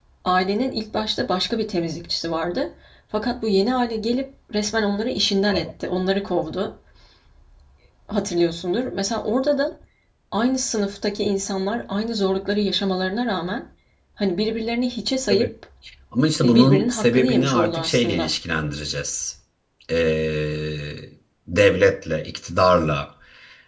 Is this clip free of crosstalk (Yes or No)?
No